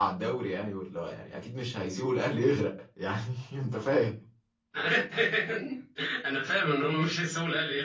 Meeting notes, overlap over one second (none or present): none